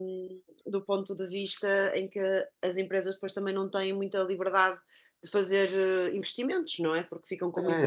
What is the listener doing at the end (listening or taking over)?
taking over